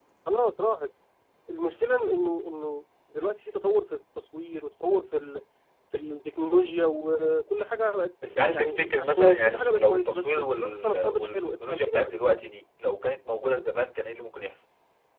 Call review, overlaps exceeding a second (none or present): present